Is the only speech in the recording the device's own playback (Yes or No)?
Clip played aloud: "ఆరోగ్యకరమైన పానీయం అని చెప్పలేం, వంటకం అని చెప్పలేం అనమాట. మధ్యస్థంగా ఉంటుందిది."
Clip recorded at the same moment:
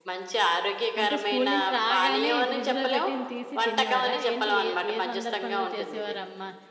No